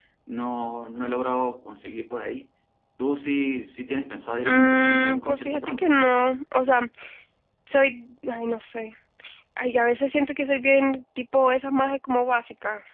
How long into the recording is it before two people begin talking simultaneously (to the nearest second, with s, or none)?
4 s